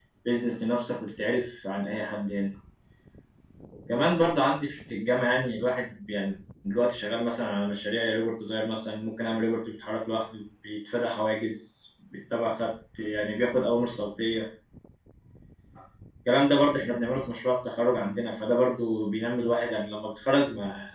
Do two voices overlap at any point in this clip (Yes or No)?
No